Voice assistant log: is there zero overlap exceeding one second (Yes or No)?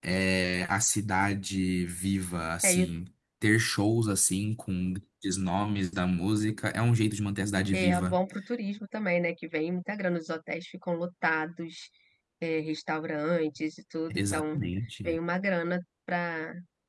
Yes